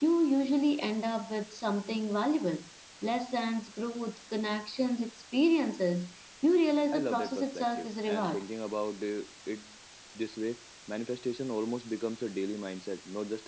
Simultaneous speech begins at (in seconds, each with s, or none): 6.9 s